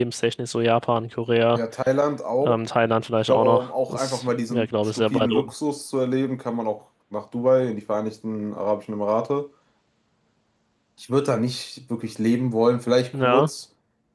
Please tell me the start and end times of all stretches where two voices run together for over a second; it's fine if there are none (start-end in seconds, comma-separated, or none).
3.3-5.5